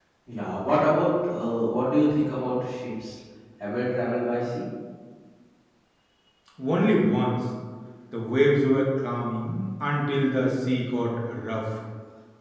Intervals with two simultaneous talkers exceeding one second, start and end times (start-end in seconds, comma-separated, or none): none